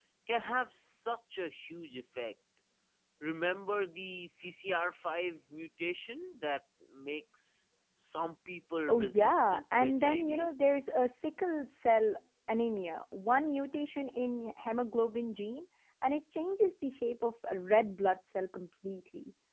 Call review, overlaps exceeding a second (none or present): present